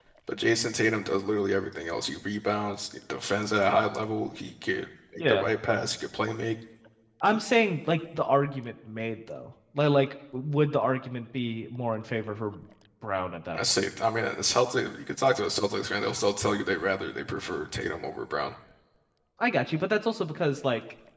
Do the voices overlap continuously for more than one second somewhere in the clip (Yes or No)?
No